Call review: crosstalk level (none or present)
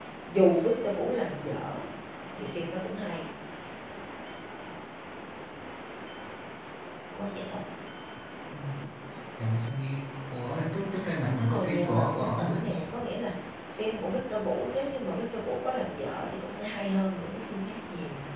present